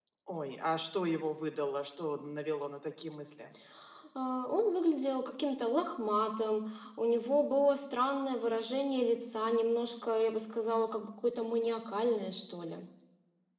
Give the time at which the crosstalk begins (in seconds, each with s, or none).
none